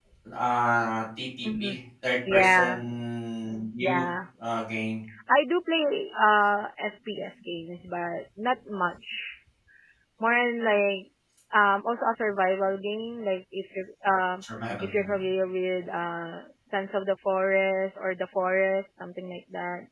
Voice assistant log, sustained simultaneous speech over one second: none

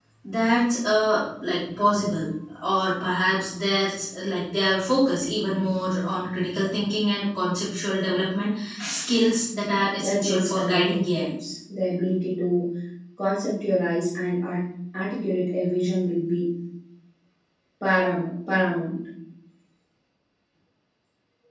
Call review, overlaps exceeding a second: present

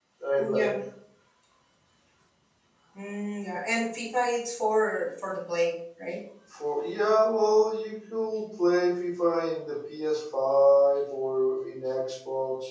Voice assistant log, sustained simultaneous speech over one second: none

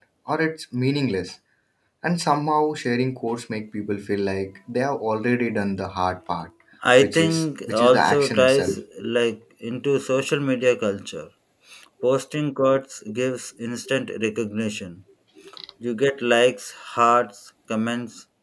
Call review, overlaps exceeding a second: present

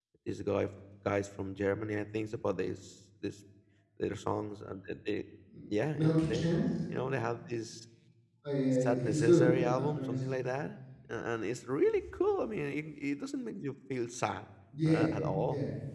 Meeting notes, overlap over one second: present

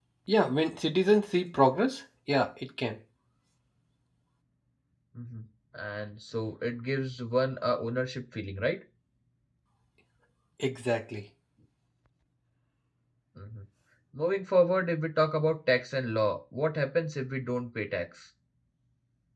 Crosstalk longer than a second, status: none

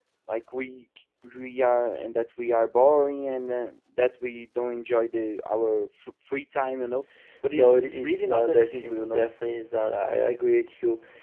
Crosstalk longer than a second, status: present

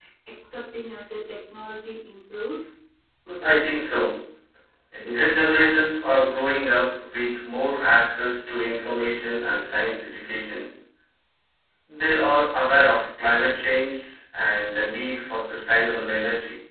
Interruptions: none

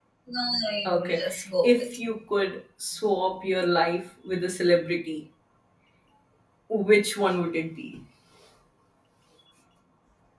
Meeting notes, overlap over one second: none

